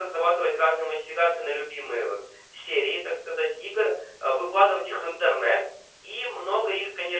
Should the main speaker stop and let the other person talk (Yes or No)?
No